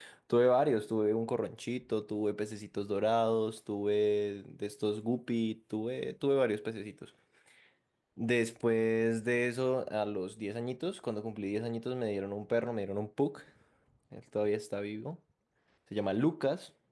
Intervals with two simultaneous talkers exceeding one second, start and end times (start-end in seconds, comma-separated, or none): none